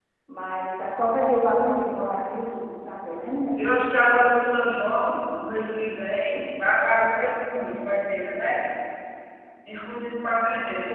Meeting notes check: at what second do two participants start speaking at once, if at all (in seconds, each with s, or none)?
none